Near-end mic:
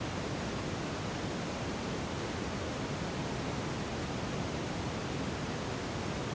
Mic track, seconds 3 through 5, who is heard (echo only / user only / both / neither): neither